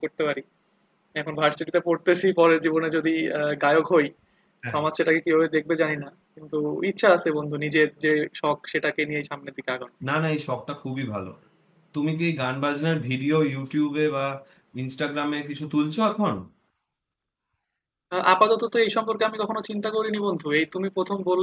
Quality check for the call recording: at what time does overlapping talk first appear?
none

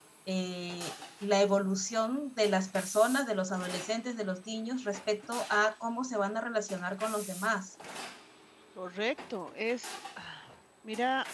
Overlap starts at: none

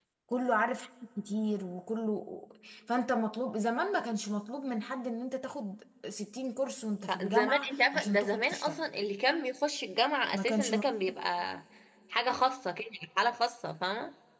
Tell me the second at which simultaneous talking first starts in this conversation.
7 s

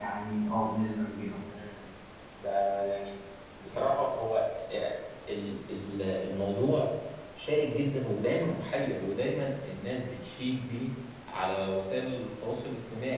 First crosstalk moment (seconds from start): none

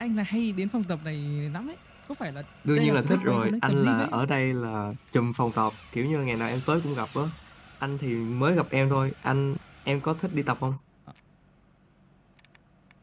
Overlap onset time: 3 s

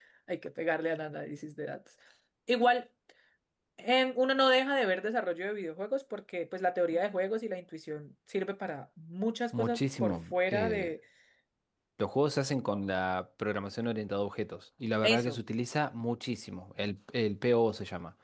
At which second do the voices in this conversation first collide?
10 s

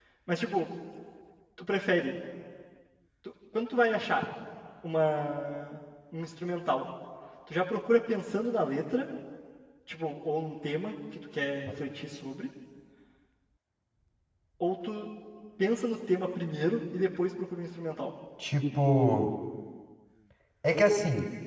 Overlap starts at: none

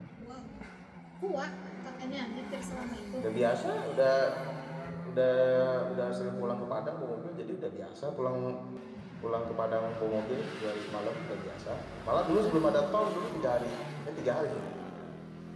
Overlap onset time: none

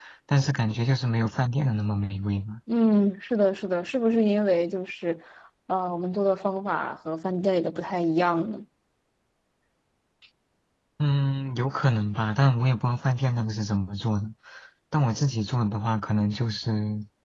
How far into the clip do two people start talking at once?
none

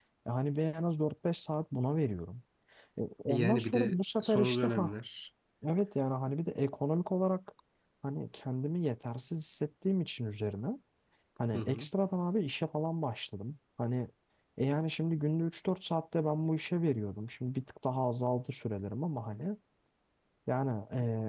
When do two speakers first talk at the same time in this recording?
3 s

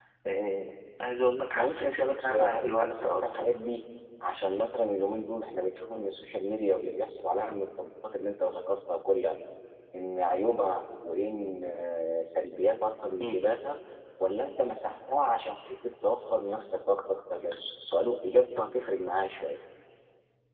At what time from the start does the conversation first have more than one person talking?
2 s

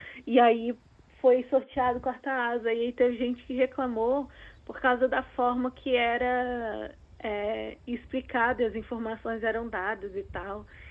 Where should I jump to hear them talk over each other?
none

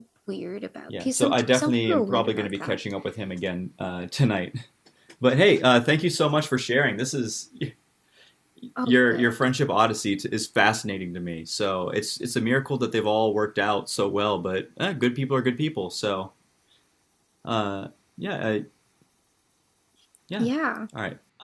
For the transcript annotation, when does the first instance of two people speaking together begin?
1 s

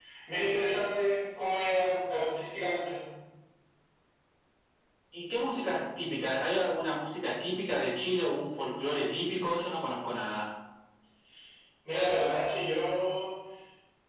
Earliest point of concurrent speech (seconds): none

